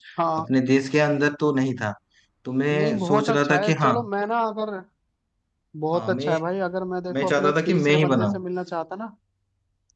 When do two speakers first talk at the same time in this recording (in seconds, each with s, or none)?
2.7 s